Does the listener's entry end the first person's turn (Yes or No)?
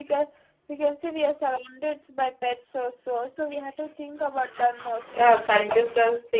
Yes